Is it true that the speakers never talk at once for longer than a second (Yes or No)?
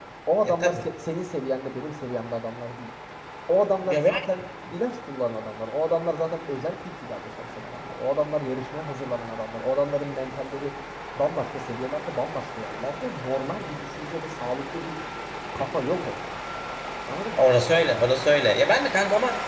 Yes